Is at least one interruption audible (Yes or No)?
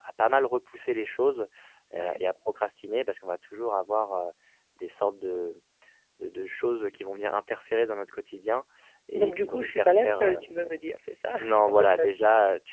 Yes